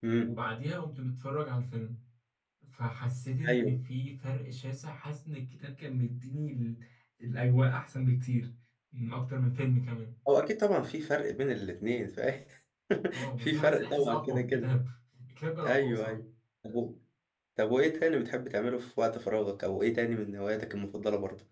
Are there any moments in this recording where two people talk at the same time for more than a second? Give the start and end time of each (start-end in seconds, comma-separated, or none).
13.4-14.7